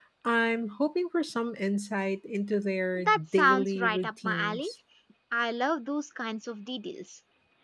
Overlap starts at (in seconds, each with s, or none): 3.0 s